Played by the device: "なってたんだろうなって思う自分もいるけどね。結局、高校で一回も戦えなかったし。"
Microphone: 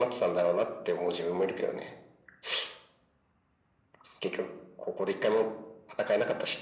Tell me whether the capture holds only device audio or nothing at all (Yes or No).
Yes